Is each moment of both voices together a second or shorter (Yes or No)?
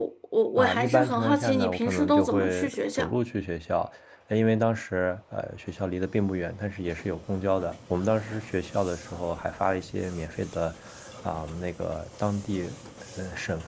No